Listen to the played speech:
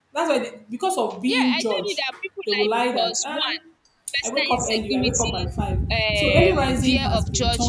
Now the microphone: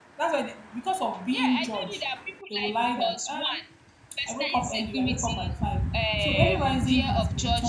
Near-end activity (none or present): none